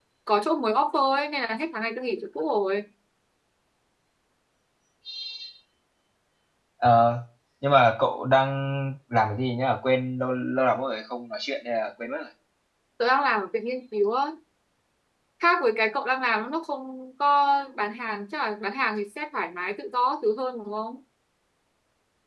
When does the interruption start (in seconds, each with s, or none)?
none